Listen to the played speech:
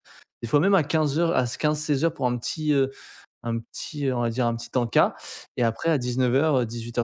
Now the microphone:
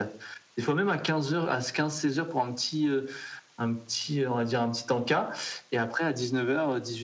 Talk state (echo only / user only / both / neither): echo only